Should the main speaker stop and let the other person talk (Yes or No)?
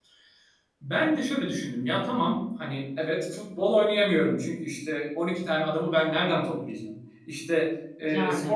No